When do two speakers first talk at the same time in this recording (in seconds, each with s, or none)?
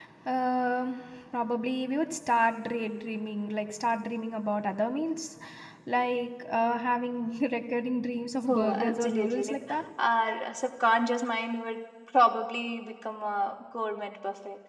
8.5 s